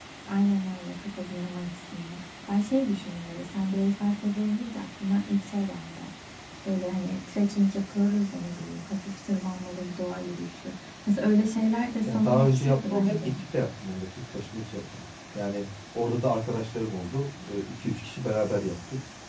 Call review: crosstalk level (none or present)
present